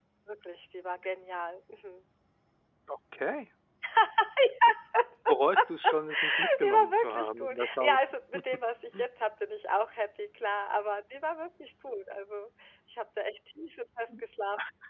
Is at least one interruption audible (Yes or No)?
Yes